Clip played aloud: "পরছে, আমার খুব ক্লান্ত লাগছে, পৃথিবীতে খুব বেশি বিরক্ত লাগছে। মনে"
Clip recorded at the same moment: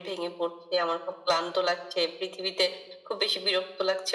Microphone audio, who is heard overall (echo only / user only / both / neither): echo only